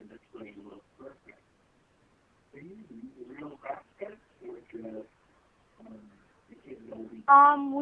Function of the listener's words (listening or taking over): taking over